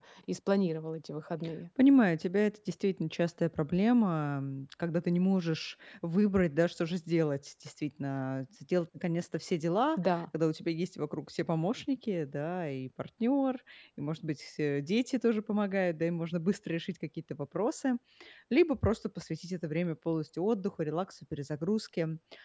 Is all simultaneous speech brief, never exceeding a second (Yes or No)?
Yes